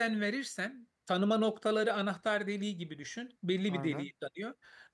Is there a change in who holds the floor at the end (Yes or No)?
No